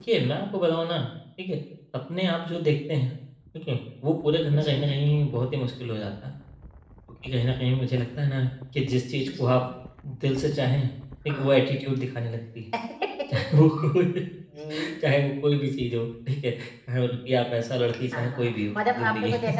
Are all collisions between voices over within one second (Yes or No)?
No